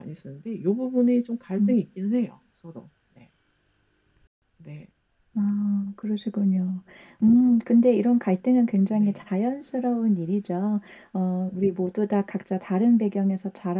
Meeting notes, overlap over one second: none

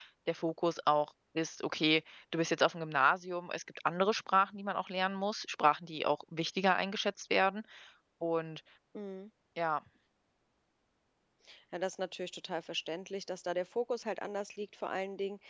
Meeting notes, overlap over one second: none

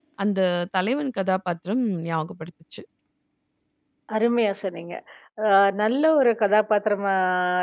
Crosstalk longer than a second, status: none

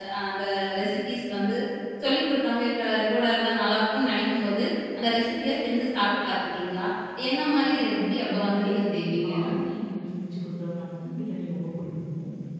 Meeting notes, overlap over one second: present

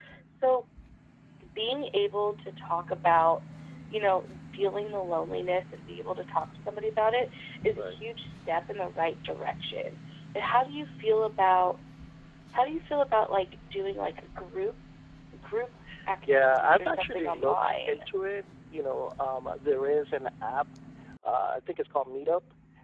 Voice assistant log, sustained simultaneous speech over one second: present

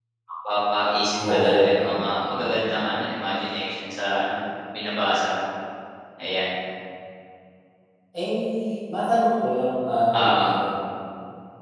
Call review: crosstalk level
present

